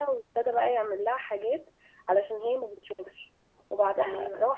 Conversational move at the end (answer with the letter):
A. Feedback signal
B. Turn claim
A